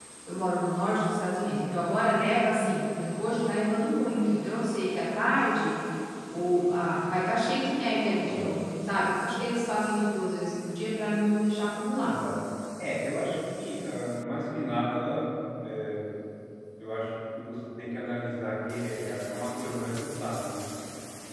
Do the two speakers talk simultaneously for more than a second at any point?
No

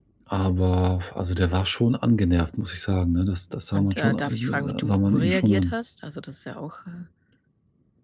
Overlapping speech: Yes, from 3.7 s

